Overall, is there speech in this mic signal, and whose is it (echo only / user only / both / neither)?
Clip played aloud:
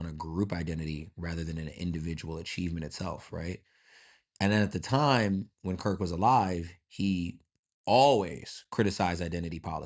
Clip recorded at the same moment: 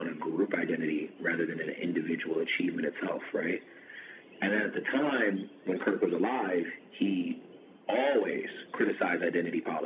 echo only